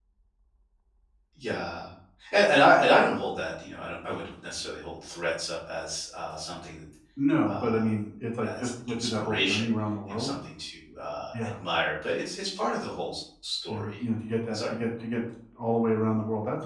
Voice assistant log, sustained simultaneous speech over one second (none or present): present